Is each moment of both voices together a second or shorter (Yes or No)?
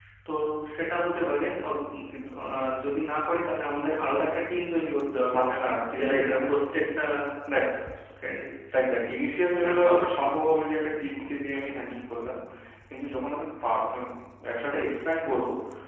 Yes